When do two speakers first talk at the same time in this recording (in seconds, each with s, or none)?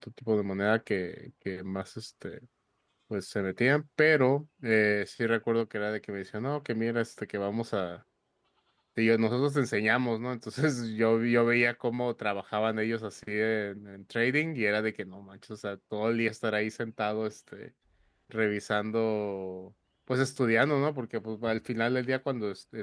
none